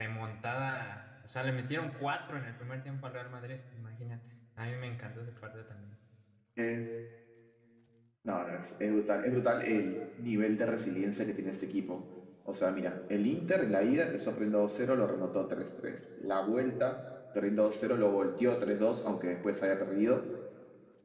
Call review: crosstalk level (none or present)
none